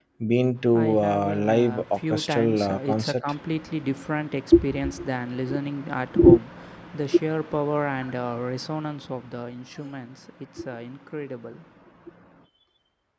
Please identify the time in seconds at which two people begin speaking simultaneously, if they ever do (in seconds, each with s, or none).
0.7 s